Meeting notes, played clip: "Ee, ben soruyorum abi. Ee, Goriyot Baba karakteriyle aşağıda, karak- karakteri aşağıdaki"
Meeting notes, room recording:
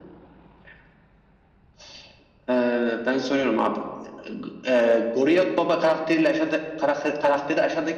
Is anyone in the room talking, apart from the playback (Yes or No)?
No